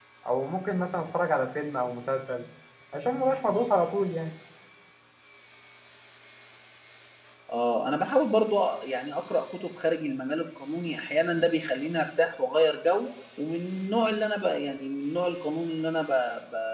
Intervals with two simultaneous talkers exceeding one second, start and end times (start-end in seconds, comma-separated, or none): none